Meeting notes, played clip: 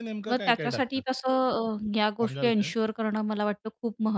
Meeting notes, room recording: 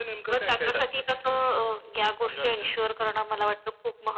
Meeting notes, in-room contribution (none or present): none